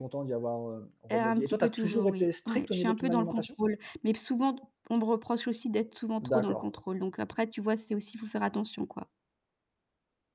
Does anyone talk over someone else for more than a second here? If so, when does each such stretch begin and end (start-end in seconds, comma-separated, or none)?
1.1-3.5